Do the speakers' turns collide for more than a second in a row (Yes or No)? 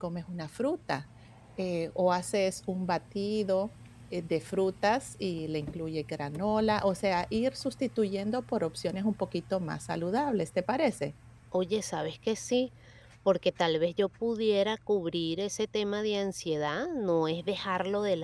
No